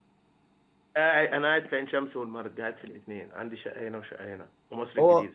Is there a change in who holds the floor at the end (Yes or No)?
Yes